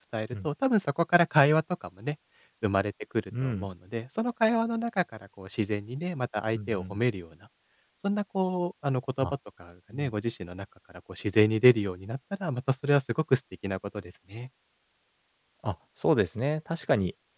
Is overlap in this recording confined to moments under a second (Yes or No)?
Yes